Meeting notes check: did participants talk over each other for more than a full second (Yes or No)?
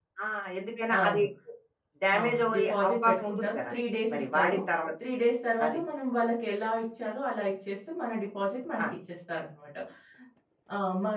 Yes